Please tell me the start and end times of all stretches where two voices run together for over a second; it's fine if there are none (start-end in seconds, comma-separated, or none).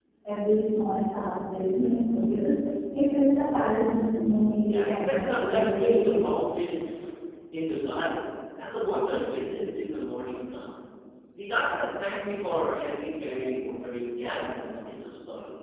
4.7-6.2